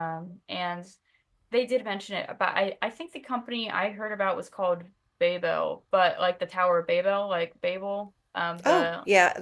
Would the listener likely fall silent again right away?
No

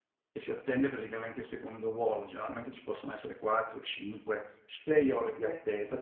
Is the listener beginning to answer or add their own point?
No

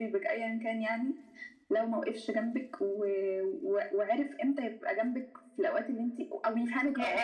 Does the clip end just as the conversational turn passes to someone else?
Yes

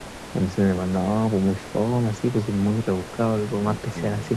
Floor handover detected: No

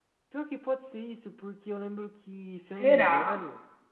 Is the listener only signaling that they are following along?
Yes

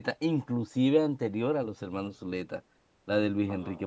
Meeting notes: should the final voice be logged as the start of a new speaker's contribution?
No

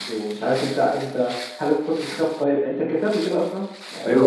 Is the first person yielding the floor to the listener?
Yes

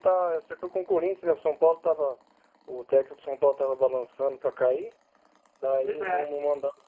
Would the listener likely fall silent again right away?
Yes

